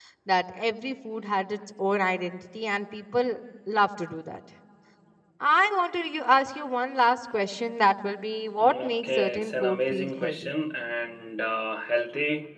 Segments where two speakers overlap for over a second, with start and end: 8.6-10.5

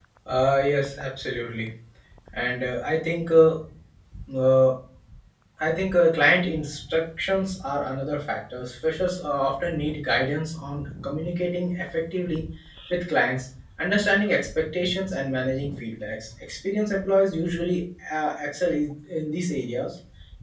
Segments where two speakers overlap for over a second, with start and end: none

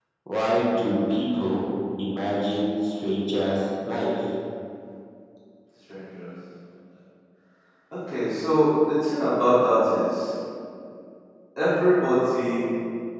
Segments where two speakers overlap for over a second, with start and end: none

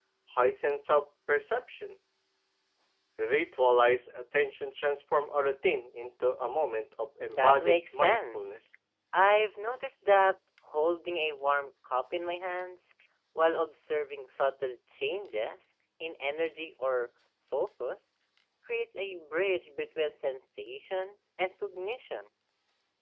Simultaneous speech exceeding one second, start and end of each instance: 7.3-8.6

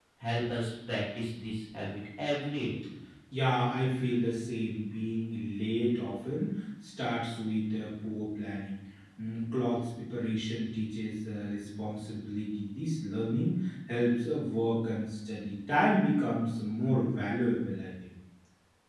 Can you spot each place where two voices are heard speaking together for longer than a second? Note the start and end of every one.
none

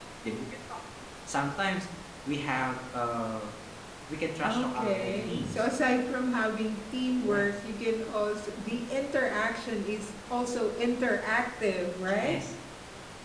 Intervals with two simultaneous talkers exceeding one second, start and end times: 4.4-5.6

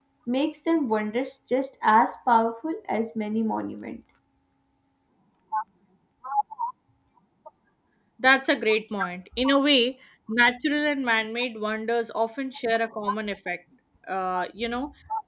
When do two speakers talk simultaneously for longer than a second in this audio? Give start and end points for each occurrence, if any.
none

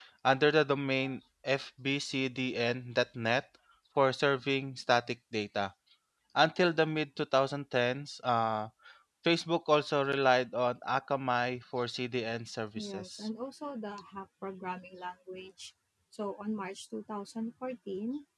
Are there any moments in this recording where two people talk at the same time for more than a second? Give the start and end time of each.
none

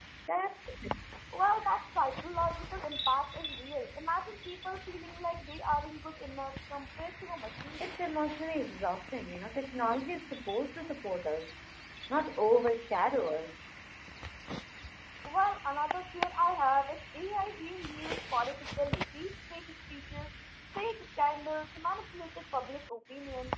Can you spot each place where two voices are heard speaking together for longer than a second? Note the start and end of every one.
none

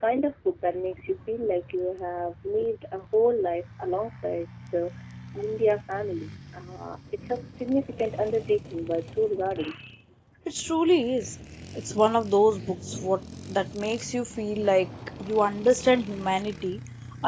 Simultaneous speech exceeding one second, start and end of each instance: none

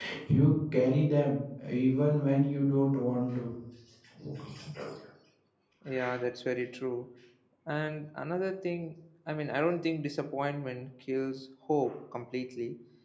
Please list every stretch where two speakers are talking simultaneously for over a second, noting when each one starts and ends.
none

